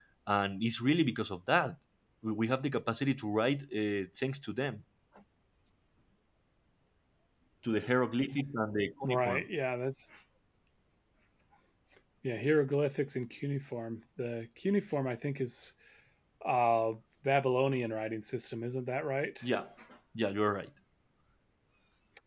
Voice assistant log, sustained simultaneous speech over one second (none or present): none